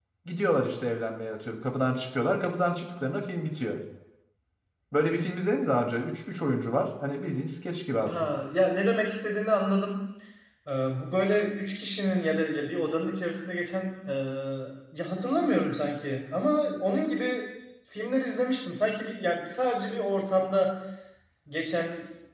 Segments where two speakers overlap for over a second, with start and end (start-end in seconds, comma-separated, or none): none